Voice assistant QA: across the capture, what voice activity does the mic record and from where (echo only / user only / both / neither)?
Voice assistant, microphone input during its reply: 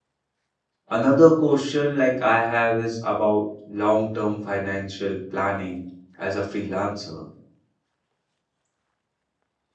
user only